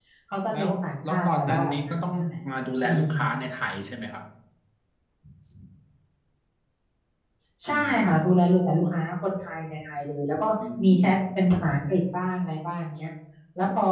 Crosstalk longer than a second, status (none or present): present